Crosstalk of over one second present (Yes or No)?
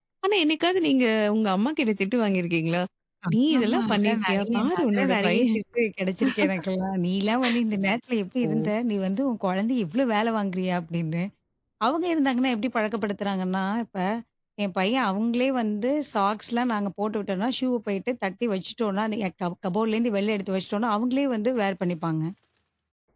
Yes